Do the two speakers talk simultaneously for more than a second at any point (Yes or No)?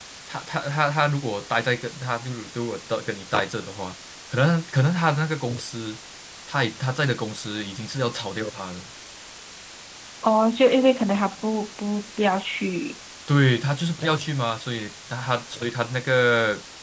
No